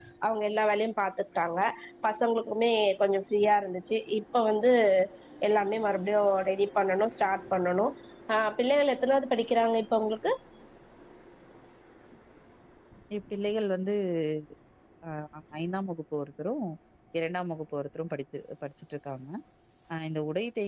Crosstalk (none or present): none